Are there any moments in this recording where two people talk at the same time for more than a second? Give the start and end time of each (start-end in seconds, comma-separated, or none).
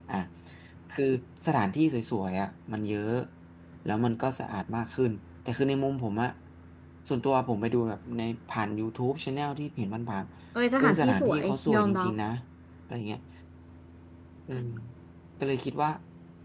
10.8-12.1